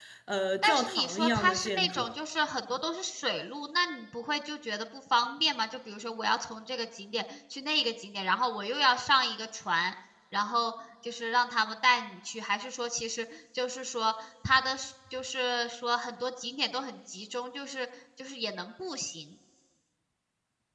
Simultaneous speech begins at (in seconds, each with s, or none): 0.6 s